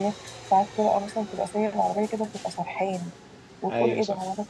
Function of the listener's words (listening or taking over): listening